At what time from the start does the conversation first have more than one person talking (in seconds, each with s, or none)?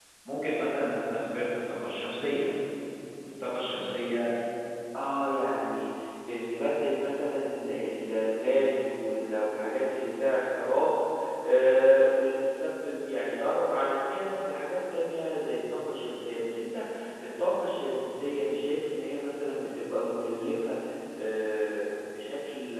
none